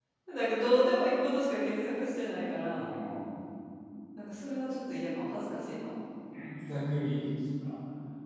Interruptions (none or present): none